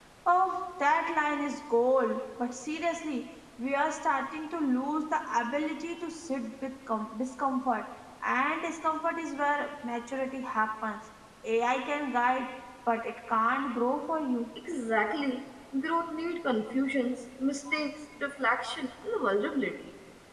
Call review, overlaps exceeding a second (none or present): none